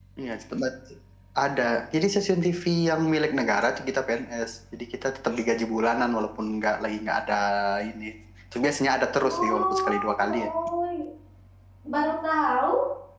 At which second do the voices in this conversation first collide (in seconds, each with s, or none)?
9.2 s